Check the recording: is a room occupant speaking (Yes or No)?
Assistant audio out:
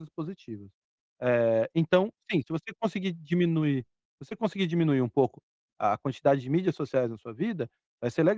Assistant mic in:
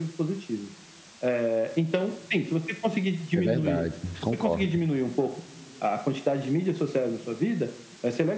Yes